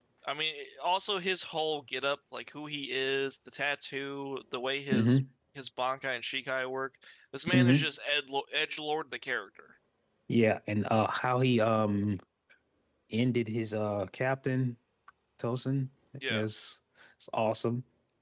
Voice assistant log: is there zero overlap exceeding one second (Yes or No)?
Yes